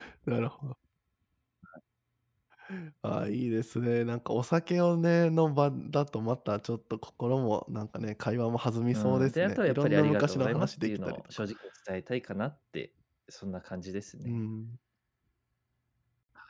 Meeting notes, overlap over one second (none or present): present